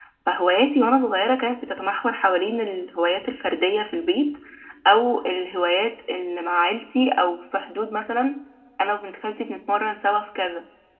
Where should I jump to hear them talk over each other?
none

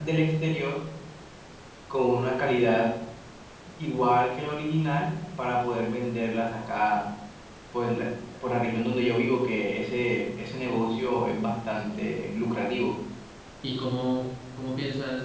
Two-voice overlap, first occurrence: none

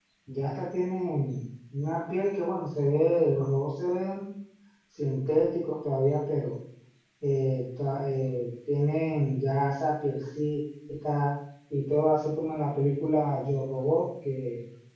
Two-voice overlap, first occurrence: none

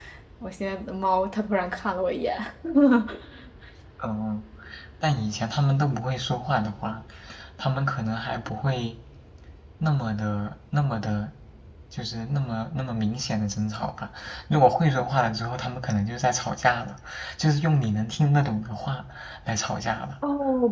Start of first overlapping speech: none

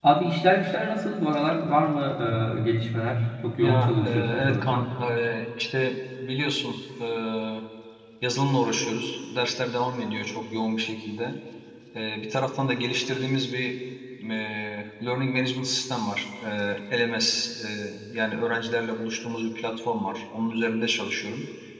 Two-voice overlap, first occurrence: 4 s

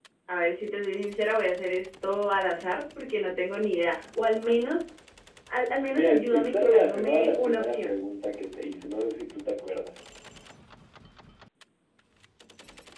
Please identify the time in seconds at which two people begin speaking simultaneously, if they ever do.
6 s

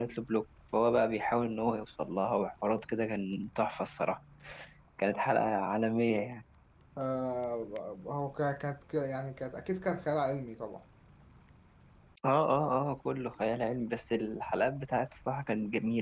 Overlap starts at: none

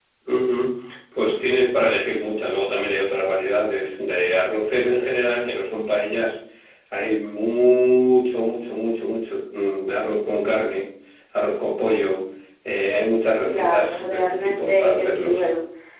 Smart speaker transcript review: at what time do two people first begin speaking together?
13 s

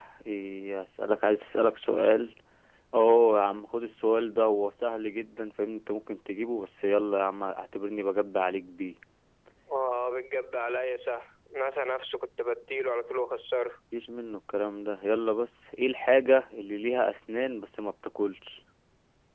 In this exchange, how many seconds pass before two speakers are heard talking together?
none

